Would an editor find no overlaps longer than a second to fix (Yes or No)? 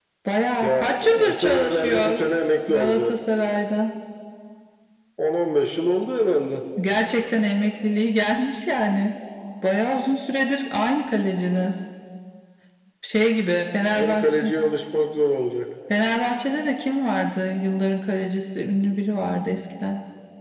No